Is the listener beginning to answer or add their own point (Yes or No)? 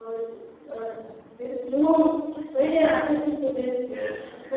No